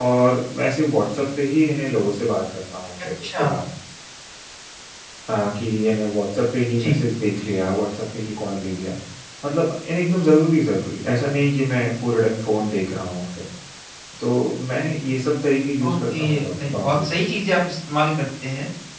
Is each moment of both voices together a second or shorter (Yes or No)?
No